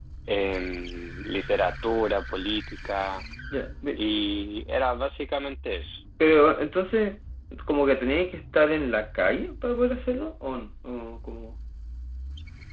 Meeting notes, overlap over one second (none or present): none